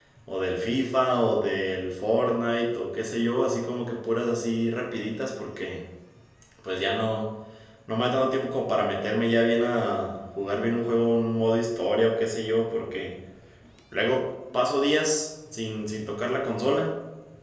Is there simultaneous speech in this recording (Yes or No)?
No